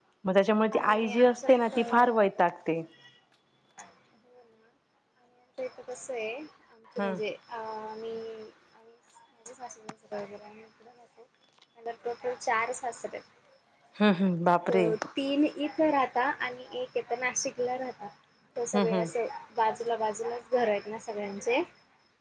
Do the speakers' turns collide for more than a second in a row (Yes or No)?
Yes